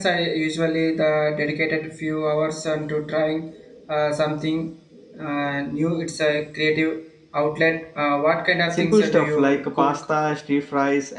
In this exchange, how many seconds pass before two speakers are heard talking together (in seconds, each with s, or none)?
8.7 s